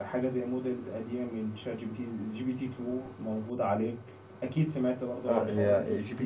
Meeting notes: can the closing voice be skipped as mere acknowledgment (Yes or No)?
No